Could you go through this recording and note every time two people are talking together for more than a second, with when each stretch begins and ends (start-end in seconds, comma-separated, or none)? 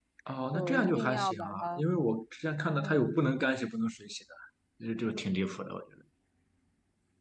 0.5-1.8